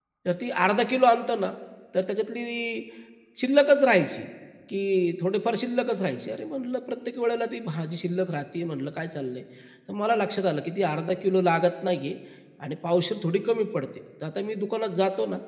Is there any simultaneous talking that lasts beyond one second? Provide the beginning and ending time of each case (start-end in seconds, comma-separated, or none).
none